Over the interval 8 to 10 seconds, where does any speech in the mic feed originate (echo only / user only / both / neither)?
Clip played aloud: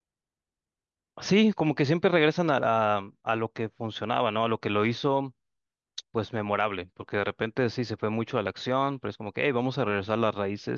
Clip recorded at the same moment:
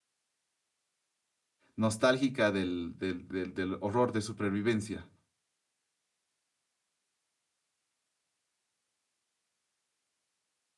neither